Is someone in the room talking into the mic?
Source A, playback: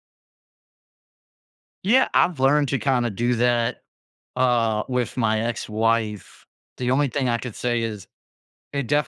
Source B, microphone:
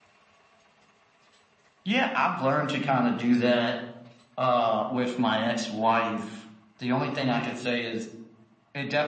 No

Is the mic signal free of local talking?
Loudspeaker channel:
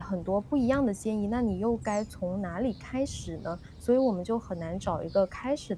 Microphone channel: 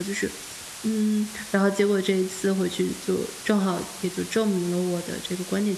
No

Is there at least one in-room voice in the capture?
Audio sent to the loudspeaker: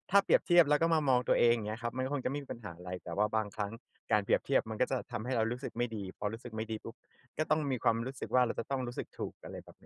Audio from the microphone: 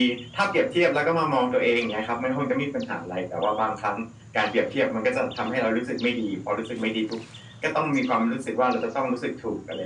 No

